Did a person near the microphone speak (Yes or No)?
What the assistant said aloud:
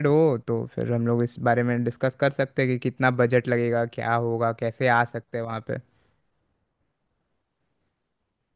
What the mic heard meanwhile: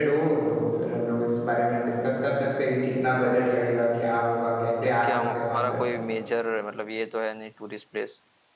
Yes